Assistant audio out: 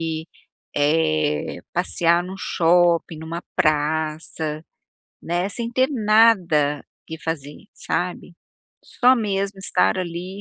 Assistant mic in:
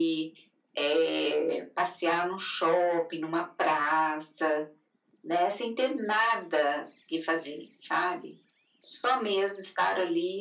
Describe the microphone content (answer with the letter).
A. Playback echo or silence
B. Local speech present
A